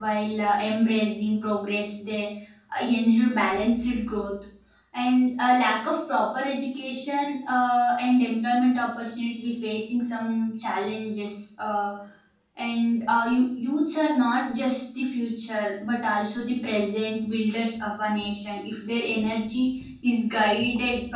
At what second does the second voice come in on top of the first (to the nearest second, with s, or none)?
none